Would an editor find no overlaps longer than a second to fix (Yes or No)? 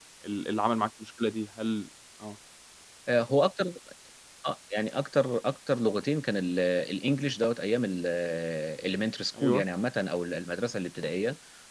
Yes